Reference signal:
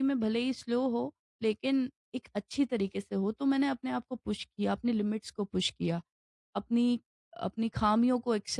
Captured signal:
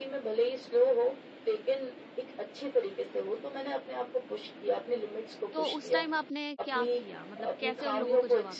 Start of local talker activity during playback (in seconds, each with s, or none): 5.5 s